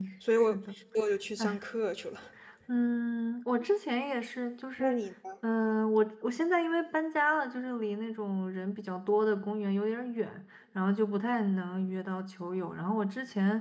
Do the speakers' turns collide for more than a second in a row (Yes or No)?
No